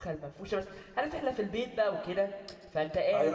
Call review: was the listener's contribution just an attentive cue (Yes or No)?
No